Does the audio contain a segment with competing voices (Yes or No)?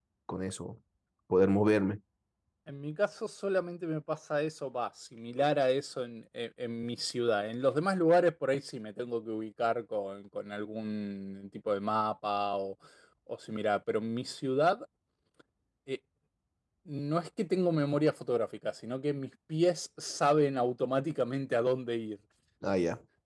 No